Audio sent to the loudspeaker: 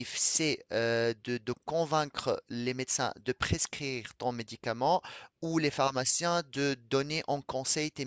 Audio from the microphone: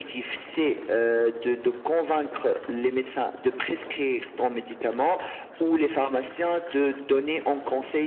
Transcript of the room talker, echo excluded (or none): none